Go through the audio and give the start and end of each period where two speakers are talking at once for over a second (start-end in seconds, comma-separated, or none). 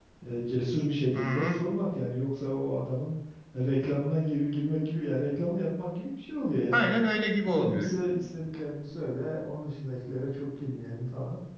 none